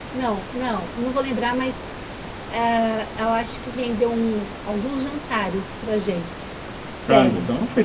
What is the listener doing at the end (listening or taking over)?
taking over